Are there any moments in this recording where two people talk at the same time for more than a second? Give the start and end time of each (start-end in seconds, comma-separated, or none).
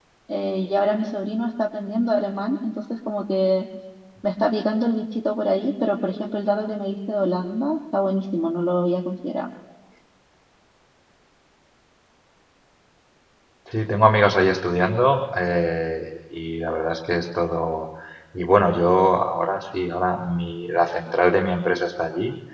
none